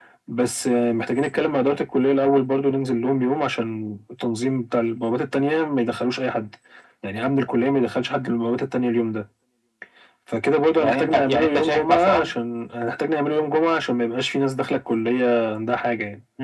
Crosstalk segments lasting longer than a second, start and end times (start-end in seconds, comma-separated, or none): 10.8-12.3